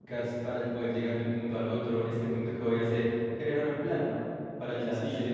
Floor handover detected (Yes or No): Yes